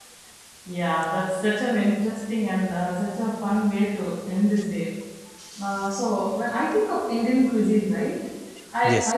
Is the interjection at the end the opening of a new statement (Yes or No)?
No